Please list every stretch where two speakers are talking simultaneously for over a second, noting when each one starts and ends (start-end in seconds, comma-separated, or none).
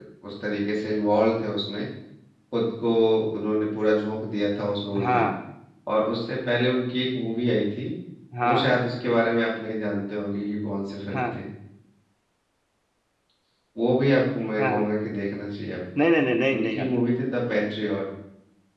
none